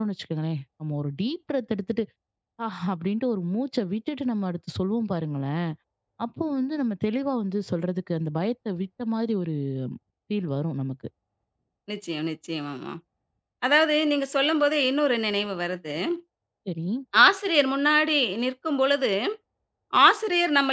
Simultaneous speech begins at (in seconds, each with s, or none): none